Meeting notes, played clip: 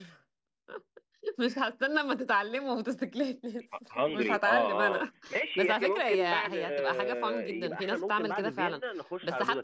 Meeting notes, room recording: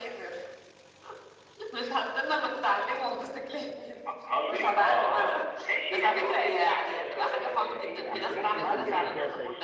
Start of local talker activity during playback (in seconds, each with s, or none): 8.1 s